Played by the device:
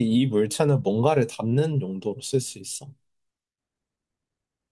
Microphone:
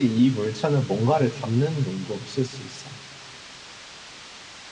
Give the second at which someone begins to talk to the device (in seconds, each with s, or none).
none